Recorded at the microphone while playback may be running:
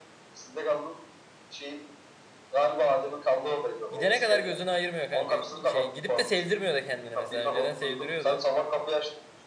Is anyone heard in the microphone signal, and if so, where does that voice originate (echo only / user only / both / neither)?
both